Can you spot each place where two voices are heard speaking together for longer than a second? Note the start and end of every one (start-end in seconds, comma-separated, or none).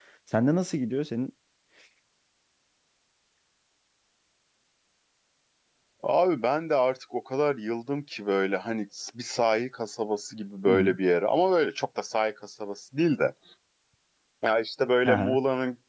none